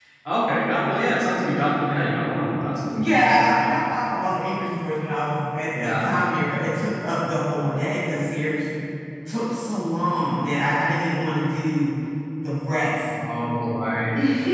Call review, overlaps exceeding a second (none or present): none